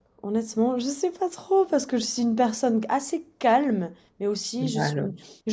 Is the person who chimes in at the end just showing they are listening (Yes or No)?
Yes